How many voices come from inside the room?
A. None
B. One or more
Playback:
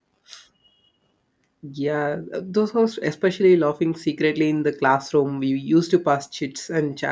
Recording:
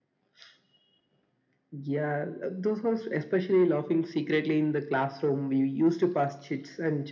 A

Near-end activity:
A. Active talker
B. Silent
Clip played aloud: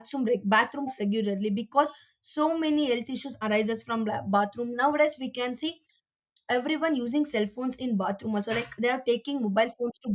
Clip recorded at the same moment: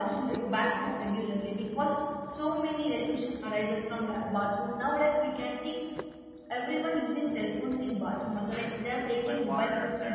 A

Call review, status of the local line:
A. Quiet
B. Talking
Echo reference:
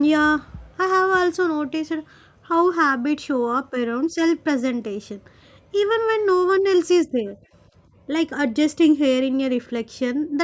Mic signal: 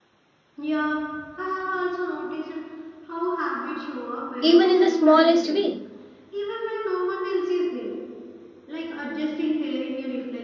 B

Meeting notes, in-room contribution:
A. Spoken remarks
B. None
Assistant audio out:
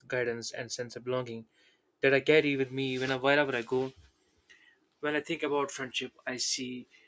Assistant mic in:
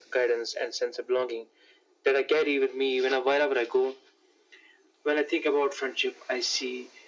B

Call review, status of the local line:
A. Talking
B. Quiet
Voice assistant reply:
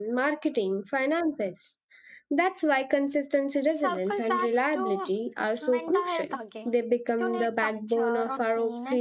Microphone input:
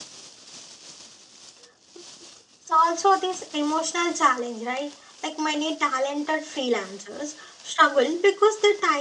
A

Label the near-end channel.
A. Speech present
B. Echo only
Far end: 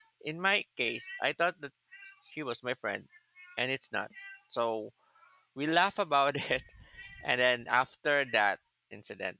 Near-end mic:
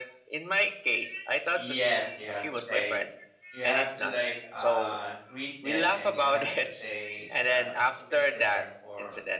A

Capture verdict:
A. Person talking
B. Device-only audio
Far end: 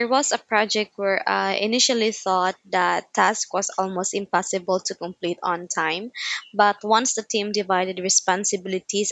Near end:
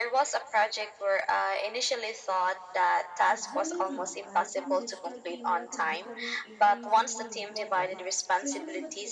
A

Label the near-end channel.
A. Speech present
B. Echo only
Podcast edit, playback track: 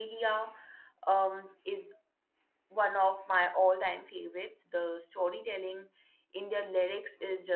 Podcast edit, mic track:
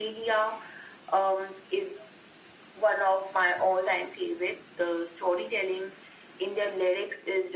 B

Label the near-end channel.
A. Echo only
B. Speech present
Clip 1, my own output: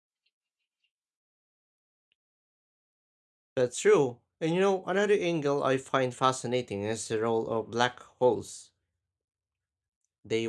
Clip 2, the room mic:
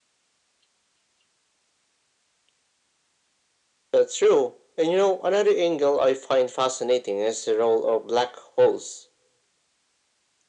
A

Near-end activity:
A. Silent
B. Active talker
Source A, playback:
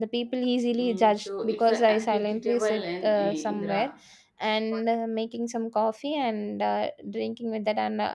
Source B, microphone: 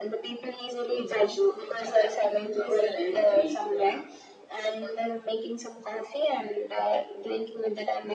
A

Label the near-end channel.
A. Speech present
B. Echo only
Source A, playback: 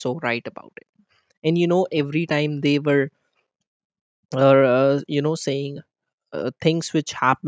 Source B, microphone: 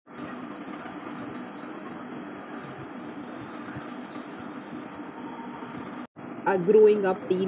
A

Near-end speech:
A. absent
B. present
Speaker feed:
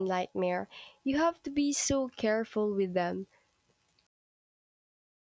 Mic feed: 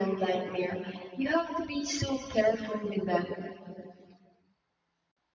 A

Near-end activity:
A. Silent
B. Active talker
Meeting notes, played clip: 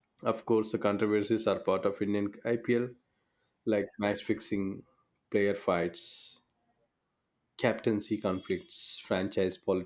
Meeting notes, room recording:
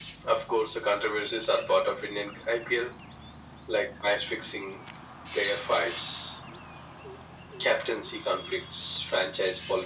A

